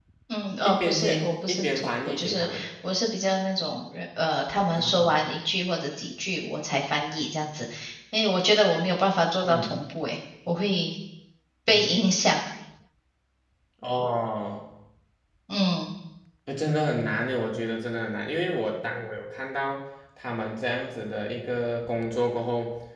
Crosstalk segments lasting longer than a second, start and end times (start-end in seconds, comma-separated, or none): 0.7-2.7